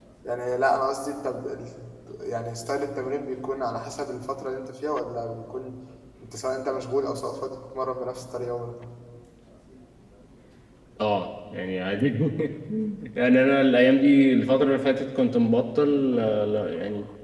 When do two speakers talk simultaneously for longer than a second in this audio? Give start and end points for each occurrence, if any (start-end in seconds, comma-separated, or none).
none